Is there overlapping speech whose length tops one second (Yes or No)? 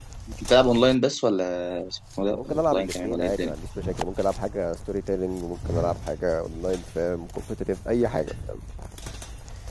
Yes